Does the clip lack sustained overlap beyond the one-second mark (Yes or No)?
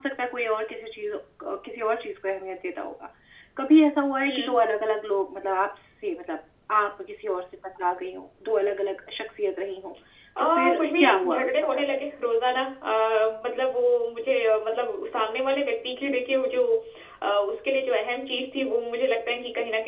No